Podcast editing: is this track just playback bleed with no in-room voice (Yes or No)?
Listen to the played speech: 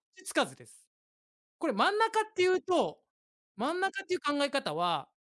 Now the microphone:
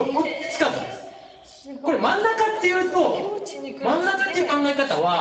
No